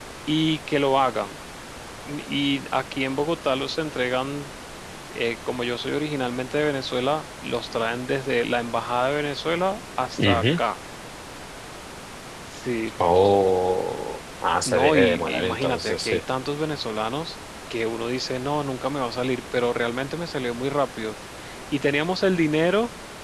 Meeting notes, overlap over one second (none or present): present